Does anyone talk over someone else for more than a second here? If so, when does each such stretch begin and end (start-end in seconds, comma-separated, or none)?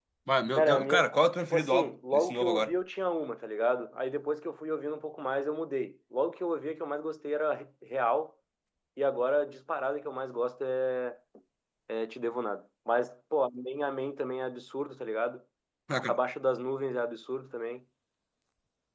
1.5-2.7